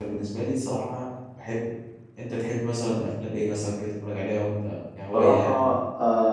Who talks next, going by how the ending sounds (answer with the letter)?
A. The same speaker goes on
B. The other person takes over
B